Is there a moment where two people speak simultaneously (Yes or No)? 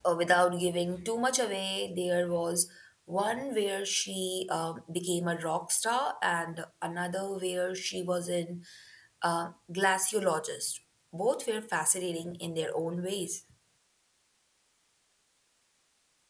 No